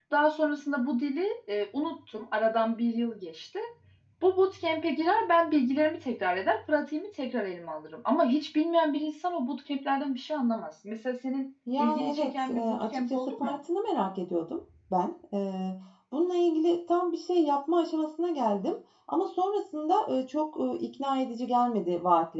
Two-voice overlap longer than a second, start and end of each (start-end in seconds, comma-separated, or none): 11.8-13.6